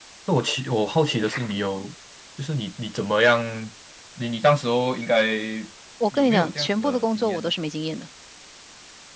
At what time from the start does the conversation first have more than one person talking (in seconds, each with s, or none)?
6.1 s